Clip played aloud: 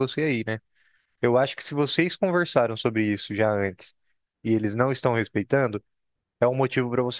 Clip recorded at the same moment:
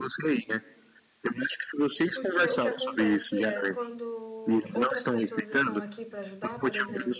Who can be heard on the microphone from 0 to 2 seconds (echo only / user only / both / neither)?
echo only